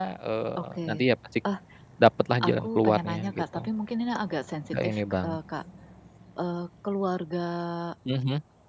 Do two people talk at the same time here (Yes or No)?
Yes